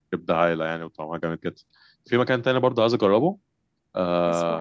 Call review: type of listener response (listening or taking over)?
listening